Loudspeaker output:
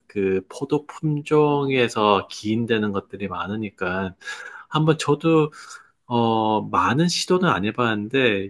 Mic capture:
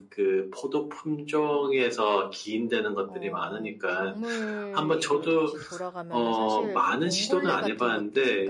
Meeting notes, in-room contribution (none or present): present